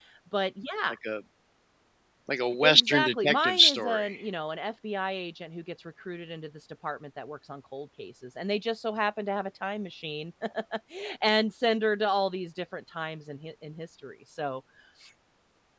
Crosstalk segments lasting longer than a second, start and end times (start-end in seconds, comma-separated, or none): 2.6-4.2